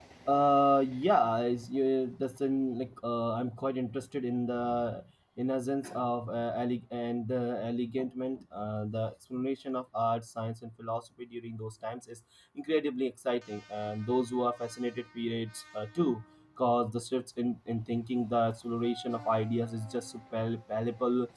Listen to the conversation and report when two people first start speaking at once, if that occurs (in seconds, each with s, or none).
none